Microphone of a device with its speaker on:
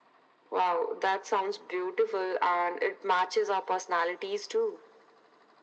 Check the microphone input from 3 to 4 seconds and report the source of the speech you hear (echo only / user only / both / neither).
echo only